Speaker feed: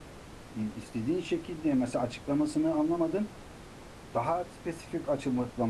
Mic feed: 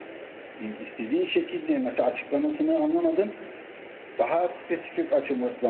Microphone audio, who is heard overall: echo only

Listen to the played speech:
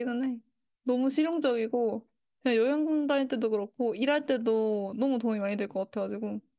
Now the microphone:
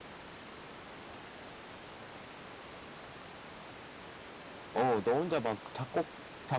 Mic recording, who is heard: user only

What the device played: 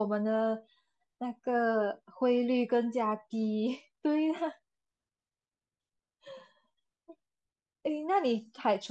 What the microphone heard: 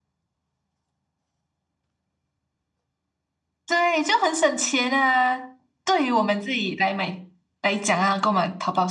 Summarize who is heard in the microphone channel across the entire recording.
user only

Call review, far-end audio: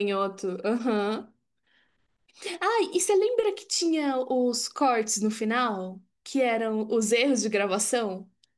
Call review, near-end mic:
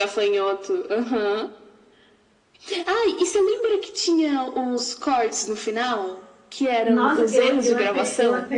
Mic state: both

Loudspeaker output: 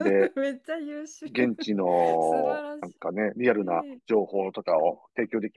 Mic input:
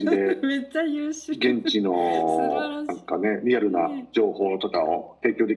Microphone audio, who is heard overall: echo only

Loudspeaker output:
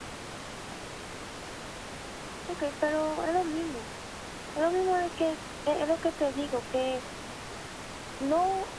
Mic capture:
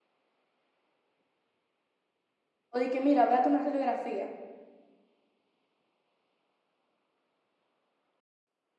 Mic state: user only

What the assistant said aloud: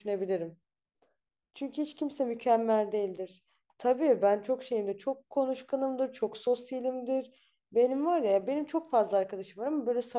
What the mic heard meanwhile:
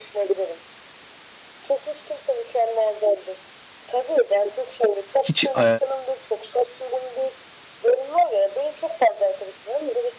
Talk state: both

